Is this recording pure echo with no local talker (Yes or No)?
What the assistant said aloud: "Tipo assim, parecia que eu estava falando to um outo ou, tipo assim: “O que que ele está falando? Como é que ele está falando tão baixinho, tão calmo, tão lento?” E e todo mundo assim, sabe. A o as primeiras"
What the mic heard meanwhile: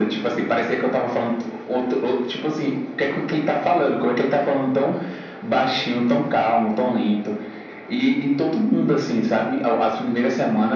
Yes